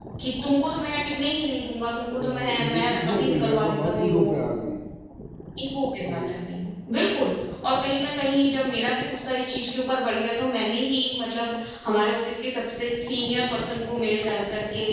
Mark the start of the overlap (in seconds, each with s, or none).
2.1 s